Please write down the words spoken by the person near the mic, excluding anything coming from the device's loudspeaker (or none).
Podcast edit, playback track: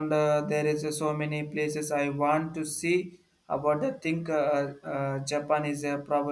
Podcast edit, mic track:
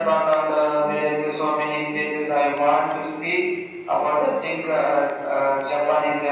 none